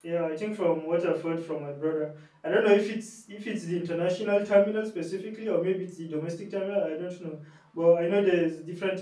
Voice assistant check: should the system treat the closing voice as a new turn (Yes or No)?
No